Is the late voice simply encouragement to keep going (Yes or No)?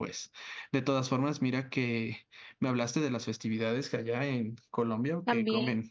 Yes